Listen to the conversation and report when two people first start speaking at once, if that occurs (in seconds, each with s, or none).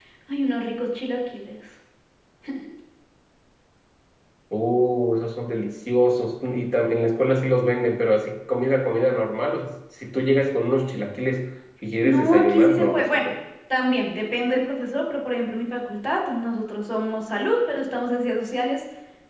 12.0 s